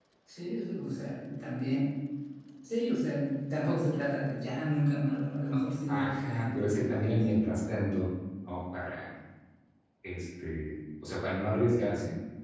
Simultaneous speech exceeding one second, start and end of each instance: 5.9-7.4

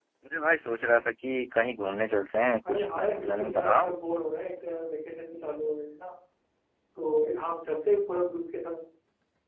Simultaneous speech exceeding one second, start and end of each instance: 2.7-3.9

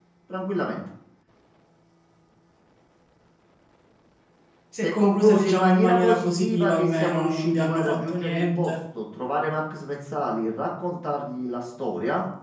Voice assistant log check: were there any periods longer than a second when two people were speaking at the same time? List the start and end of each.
4.8-8.7

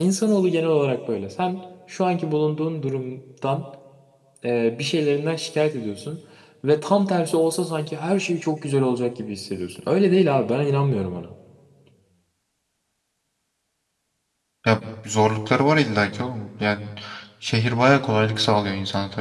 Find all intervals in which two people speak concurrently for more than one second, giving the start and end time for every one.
none

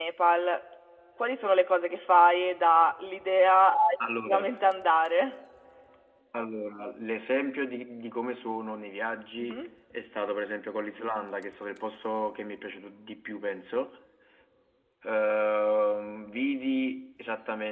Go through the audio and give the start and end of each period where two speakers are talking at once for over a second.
none

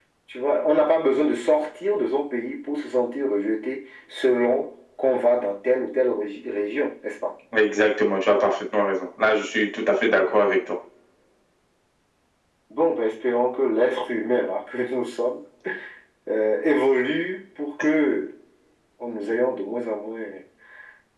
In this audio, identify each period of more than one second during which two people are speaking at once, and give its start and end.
none

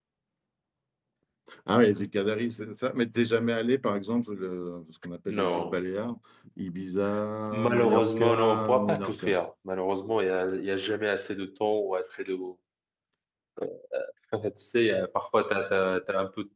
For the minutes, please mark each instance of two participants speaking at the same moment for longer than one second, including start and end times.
7.5-9.3

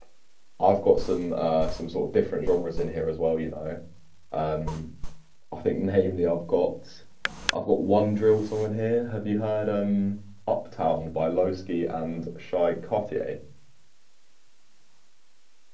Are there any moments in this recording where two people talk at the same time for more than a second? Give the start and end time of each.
none

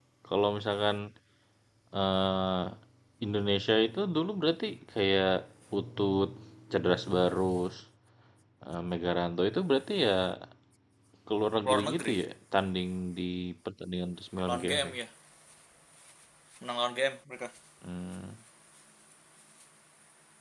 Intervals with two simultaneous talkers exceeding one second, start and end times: none

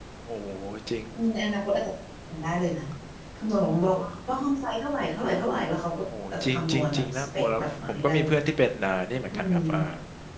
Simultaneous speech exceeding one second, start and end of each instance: 6.3-8.3

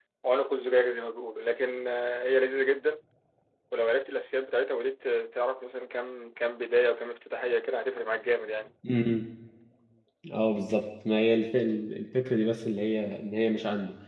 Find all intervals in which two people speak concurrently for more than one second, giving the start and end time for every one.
none

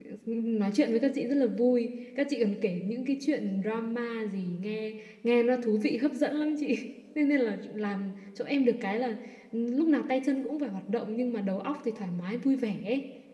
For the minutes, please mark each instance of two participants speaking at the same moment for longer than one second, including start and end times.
none

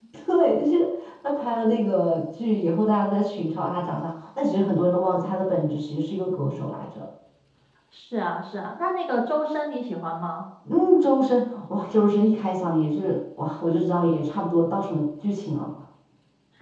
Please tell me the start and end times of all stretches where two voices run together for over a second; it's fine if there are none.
none

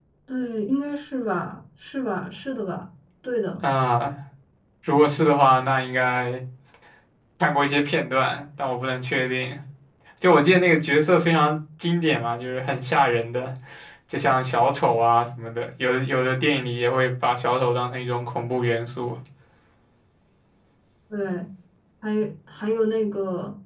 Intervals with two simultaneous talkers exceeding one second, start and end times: none

